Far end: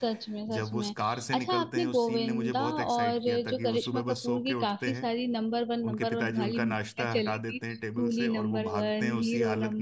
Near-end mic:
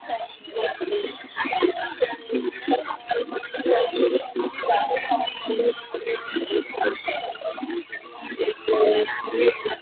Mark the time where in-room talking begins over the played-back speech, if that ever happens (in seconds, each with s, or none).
none